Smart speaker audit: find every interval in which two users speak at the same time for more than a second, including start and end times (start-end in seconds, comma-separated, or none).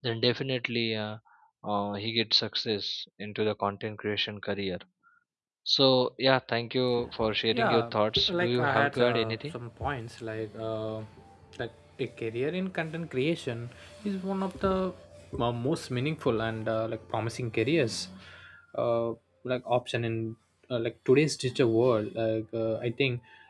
8.3-9.5